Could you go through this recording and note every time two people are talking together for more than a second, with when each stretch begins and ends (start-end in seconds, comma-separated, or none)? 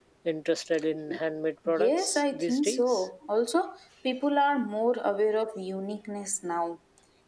1.7-3.0